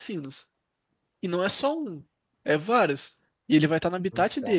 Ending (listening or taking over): listening